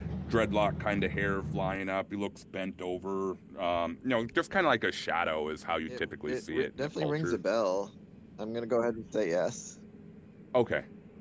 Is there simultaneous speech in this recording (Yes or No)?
Yes